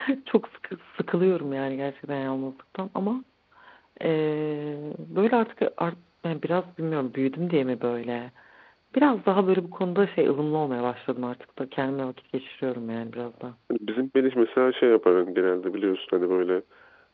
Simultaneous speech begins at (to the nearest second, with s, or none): none